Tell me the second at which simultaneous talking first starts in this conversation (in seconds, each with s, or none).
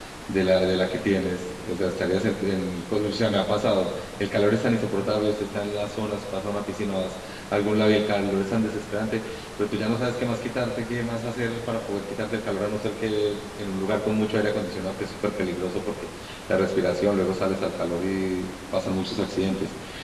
none